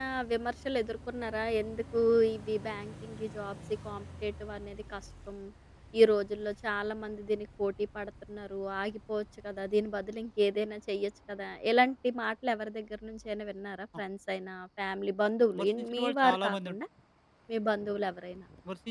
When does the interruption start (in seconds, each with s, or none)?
15.5 s